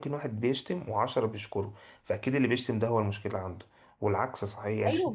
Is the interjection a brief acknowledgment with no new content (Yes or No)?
Yes